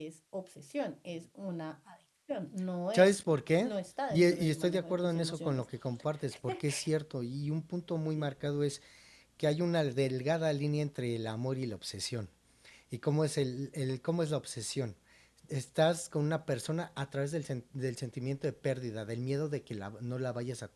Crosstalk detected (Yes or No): Yes